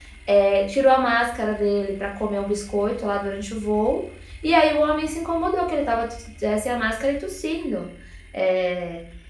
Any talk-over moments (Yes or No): No